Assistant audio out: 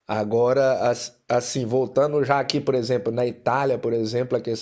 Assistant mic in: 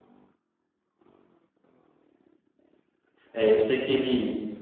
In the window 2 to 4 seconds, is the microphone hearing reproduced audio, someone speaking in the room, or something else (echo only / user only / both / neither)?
user only